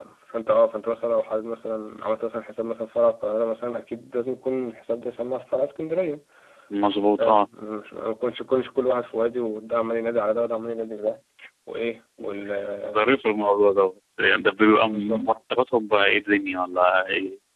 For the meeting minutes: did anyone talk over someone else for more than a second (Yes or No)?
No